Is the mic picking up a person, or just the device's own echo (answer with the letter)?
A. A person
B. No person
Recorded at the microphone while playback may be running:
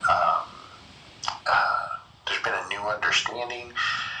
B